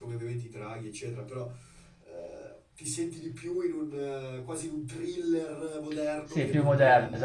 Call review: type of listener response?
taking over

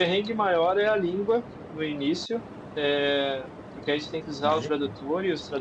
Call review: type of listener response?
listening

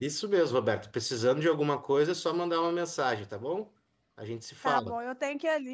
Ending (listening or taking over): taking over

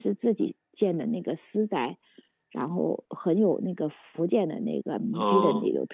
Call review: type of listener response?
listening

